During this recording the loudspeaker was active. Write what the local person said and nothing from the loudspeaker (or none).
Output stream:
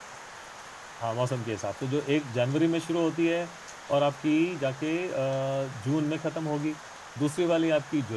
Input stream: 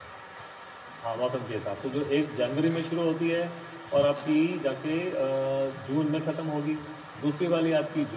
none